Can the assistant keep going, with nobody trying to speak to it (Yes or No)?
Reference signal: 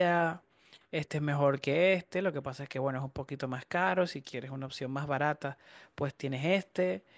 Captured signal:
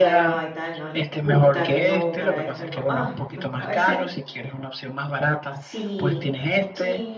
No